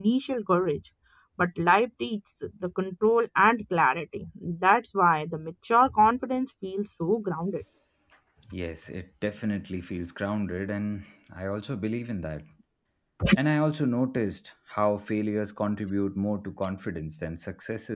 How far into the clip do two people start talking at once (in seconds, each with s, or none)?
none